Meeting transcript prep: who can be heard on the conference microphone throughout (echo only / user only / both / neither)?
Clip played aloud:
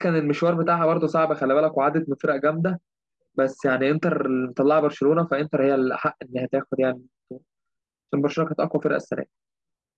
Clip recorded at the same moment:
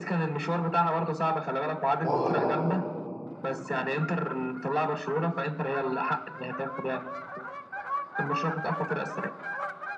both